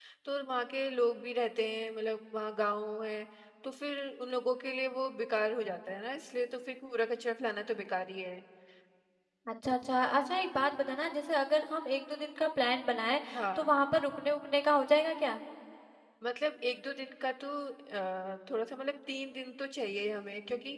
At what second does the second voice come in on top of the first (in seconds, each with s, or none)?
none